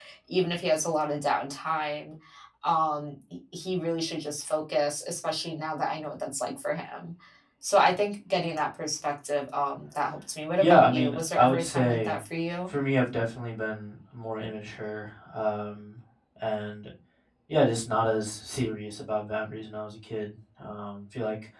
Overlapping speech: Yes, from 10.6 s

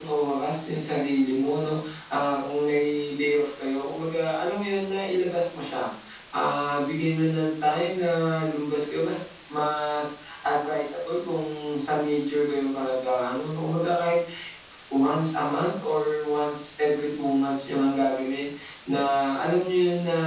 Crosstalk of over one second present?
No

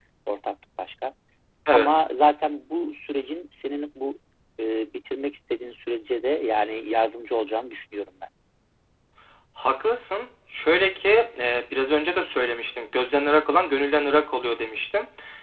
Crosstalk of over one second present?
No

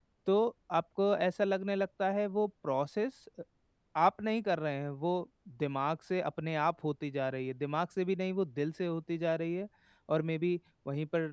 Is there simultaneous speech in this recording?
No

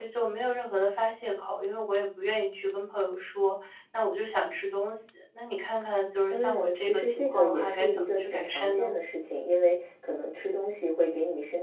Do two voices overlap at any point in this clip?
Yes, from 6.3 s

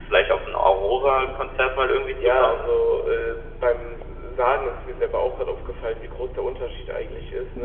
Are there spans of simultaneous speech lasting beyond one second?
No

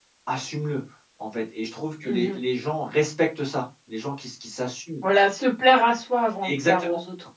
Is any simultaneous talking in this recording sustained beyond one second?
No

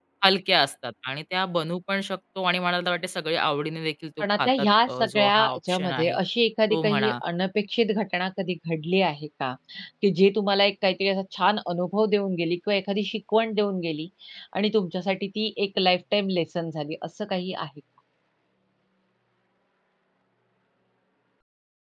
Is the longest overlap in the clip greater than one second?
Yes, from 4.2 s

